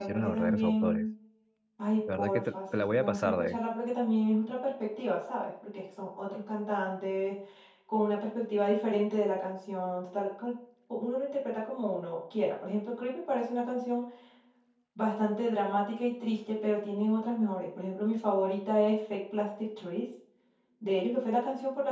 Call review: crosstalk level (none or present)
present